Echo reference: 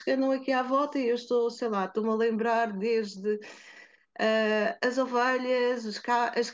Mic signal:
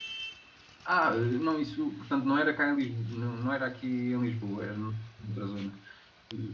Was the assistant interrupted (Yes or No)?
Yes